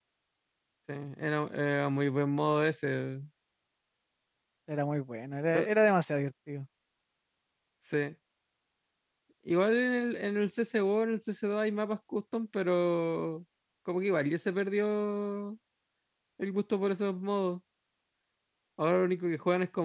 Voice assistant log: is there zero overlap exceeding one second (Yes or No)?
Yes